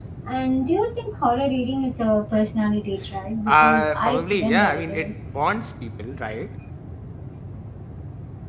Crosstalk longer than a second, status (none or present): present